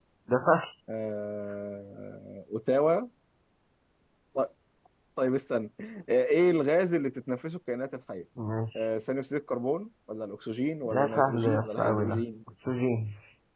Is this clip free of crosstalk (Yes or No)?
No